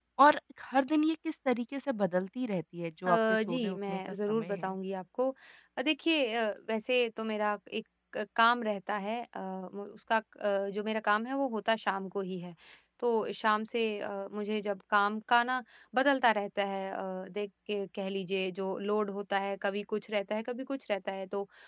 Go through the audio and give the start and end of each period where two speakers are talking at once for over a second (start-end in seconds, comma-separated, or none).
3.1-4.7